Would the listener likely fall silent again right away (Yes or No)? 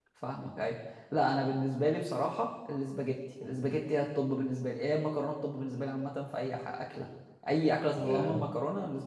Yes